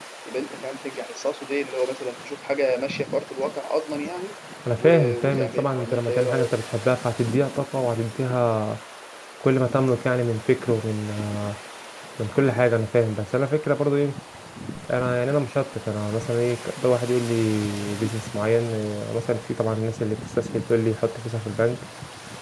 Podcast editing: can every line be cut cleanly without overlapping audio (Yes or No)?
No